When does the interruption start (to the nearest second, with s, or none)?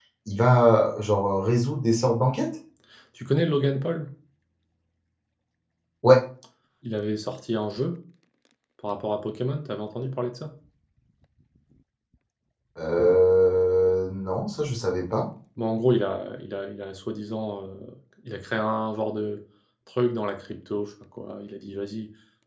none